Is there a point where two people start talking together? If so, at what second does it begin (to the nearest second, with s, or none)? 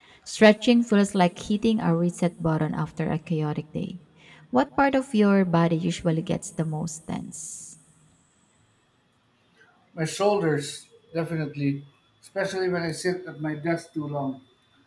none